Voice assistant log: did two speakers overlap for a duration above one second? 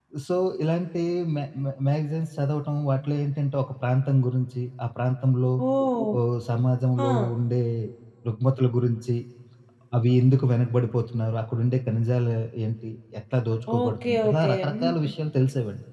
Yes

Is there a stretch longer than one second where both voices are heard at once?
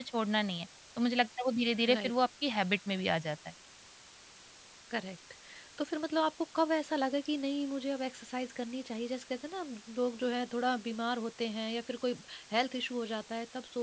No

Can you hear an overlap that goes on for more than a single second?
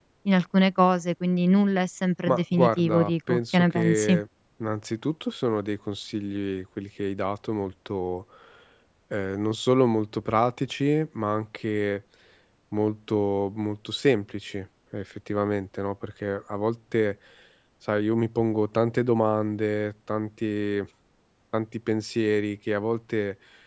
Yes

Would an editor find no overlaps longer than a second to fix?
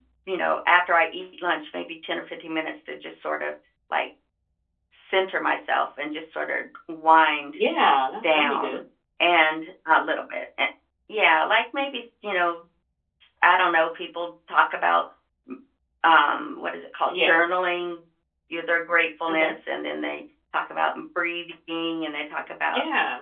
Yes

